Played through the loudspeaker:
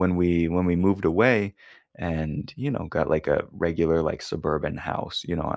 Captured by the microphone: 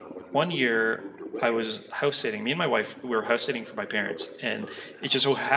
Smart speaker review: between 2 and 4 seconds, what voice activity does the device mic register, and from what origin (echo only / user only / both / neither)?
both